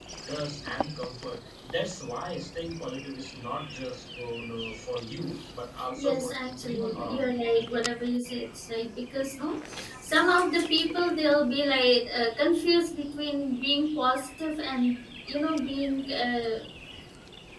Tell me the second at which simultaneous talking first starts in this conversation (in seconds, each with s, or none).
6.0 s